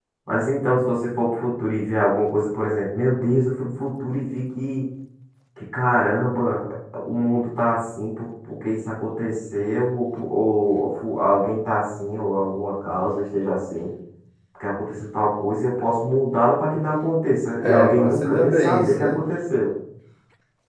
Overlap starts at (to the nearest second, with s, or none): 18 s